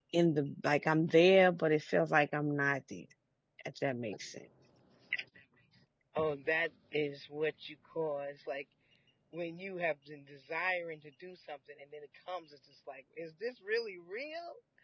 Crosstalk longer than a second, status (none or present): none